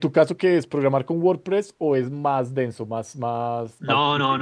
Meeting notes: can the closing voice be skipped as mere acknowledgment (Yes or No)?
No